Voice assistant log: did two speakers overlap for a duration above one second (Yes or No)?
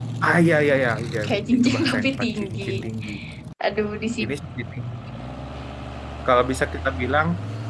Yes